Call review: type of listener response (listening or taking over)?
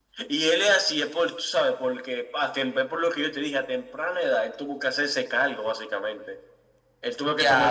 taking over